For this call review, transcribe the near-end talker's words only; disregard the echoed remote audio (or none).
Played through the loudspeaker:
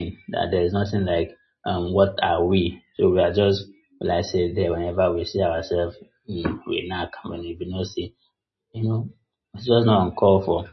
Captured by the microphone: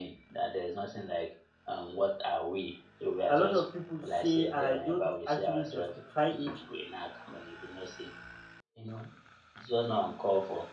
a lot of people say, and I don't actually justify it,